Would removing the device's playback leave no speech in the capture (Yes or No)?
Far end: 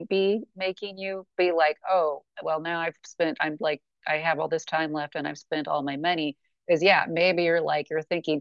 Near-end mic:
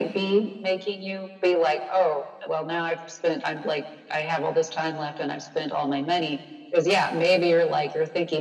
Yes